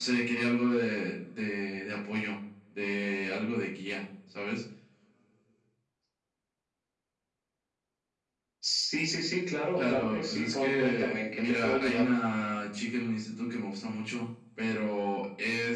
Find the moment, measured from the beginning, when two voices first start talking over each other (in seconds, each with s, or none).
9.8 s